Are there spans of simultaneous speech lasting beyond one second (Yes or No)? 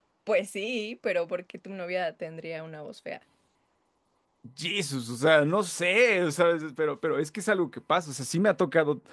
No